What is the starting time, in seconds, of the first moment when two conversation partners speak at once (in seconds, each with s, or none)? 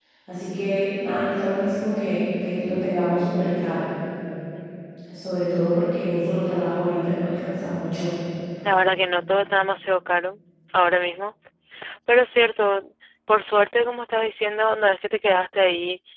none